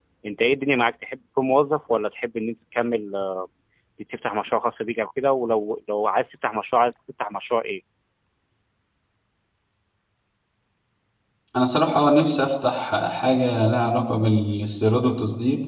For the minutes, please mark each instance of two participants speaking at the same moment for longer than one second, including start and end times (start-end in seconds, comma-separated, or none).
none